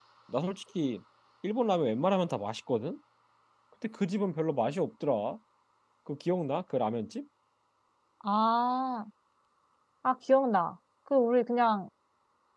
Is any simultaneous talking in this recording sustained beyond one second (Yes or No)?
No